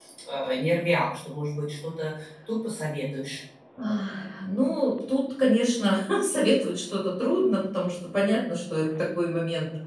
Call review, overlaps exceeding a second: none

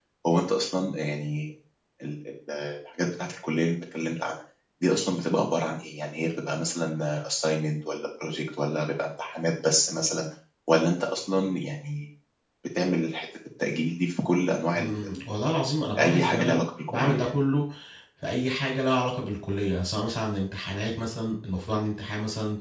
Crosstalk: present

